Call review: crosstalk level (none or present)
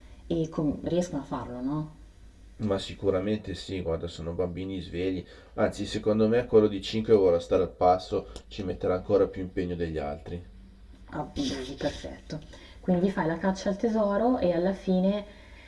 none